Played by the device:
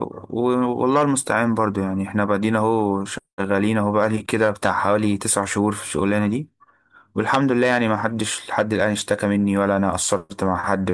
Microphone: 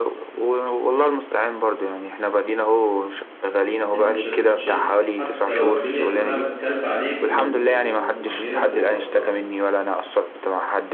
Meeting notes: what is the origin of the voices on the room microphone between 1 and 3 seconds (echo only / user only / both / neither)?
echo only